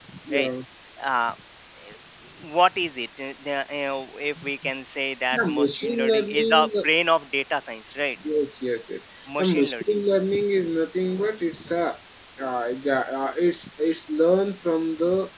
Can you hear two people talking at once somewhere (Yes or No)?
Yes